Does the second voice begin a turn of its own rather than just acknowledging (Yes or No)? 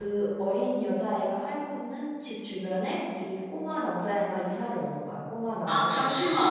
Yes